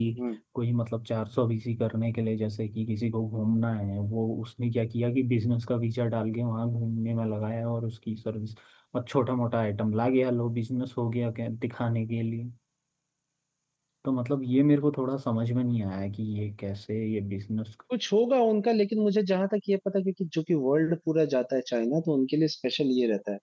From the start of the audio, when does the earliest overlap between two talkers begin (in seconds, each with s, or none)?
none